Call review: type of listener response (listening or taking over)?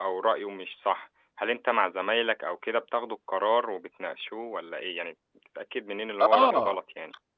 taking over